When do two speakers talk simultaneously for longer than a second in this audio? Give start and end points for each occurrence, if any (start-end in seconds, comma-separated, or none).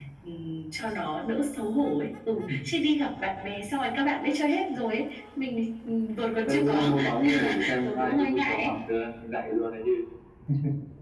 6.4-8.7